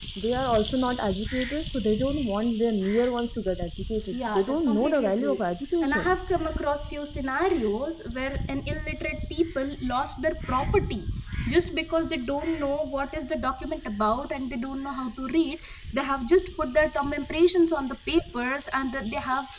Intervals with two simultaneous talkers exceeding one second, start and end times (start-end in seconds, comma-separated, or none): 4.1-5.4